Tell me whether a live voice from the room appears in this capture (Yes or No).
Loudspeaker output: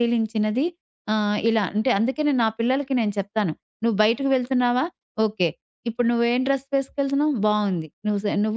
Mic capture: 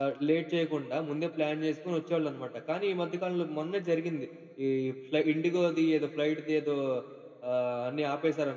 Yes